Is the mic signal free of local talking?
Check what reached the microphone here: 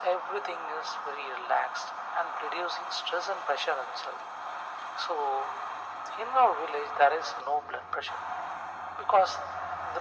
Yes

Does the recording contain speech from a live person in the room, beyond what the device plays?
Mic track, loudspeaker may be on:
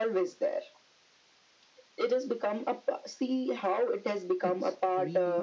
Yes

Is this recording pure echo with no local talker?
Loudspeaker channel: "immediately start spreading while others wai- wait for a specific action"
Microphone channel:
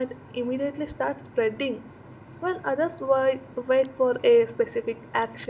Yes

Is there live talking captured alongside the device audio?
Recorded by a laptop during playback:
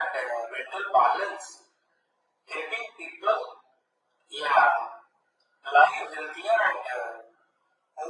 No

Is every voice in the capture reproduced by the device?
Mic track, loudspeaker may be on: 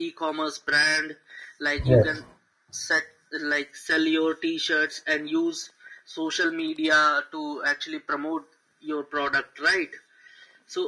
No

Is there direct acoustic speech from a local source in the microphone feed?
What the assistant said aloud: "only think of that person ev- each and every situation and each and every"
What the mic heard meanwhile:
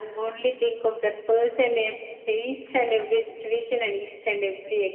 No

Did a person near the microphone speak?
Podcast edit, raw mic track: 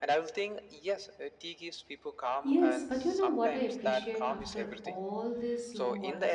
Yes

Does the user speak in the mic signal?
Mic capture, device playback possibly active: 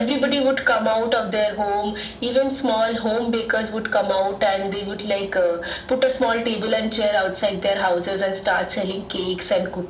No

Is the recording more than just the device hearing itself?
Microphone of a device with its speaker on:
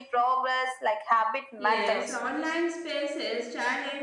Yes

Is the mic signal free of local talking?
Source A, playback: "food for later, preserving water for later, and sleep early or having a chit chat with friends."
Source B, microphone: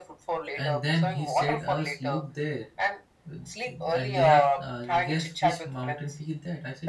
No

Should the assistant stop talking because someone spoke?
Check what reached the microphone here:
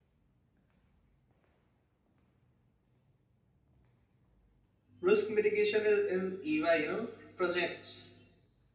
Yes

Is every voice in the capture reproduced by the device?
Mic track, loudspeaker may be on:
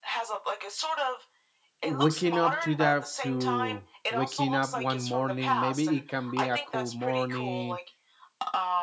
No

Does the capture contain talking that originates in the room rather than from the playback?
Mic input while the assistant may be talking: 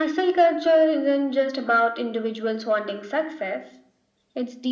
No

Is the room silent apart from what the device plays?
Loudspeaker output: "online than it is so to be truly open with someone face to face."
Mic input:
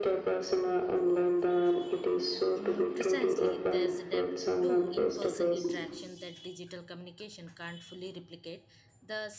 No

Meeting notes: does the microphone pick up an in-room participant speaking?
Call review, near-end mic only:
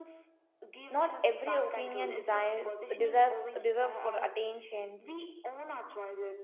Yes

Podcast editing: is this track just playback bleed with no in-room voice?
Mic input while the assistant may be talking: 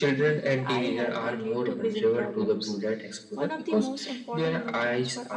Yes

